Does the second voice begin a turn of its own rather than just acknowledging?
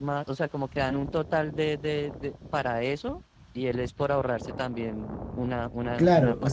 Yes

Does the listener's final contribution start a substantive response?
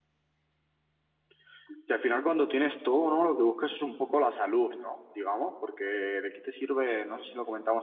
No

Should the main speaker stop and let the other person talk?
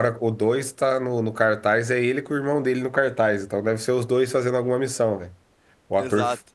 No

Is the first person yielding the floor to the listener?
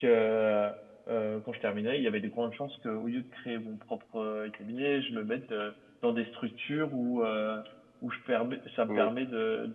No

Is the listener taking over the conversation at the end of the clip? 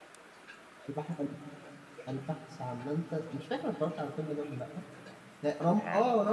No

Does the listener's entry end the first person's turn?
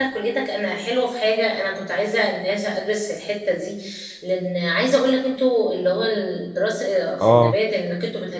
No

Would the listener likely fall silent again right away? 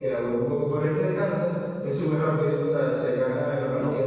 Yes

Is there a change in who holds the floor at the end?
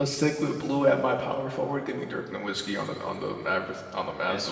Yes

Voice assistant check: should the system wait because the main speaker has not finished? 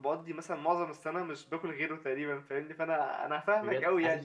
No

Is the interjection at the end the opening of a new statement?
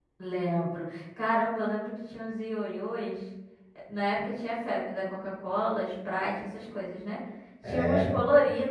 No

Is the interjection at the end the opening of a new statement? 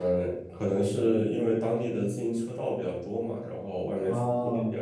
Yes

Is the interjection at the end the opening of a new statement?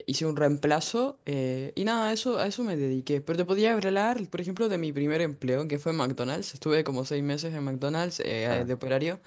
No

